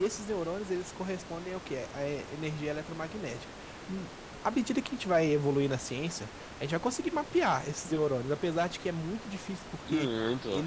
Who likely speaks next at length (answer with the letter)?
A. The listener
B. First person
B